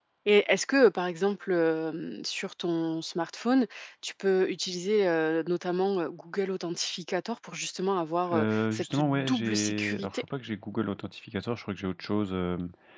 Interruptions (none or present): present